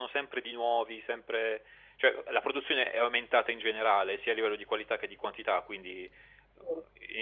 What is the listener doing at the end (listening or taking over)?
listening